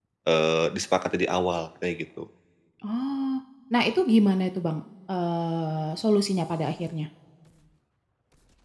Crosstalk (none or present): none